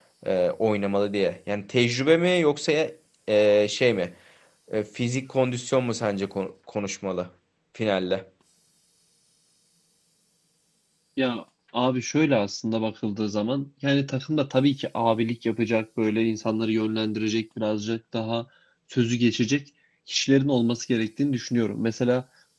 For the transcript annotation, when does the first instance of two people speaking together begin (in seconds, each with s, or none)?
none